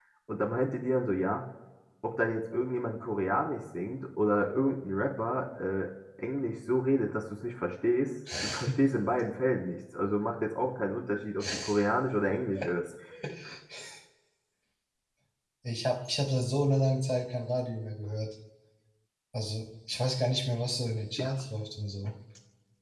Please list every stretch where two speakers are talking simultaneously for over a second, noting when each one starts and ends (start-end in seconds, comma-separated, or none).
none